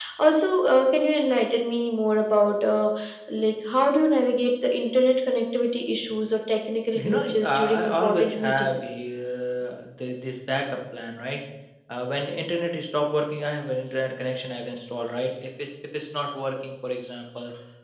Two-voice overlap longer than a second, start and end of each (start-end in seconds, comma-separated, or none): 7.0-8.9